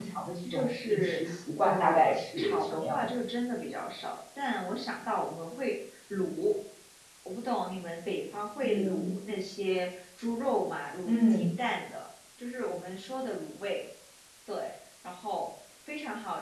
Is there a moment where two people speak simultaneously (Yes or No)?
Yes